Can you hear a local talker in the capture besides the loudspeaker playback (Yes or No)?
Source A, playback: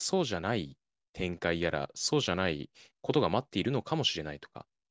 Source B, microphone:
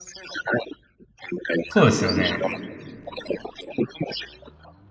Yes